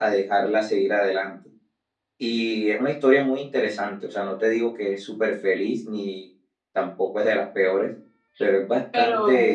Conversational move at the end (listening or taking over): listening